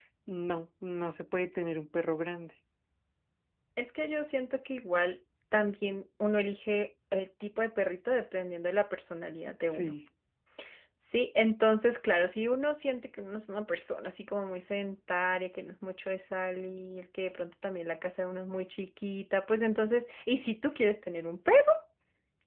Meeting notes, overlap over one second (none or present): none